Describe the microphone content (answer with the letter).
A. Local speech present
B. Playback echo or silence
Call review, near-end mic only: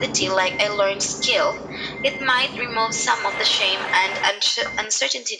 B